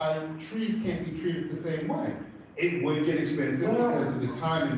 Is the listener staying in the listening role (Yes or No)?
Yes